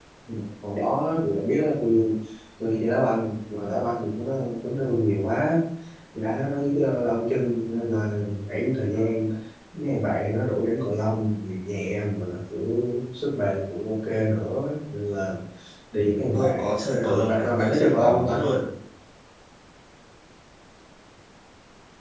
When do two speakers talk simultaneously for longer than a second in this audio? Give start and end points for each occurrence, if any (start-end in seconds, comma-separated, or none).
16.3-18.5